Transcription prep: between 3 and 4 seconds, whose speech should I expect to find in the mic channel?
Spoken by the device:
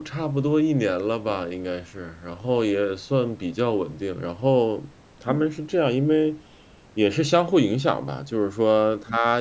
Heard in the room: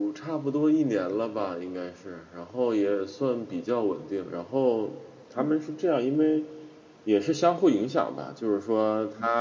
echo only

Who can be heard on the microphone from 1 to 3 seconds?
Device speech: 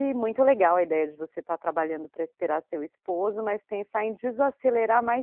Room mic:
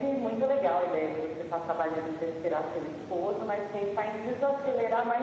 echo only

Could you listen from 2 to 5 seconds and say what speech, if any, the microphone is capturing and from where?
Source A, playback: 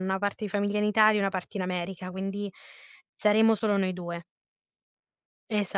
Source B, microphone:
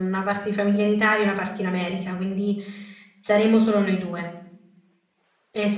echo only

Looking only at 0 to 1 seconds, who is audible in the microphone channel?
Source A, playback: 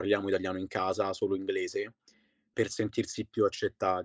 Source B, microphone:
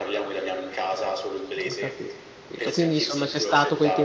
echo only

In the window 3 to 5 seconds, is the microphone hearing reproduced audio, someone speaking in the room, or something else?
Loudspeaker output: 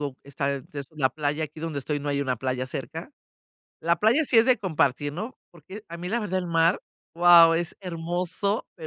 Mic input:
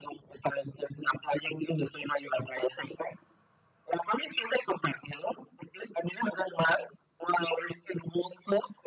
echo only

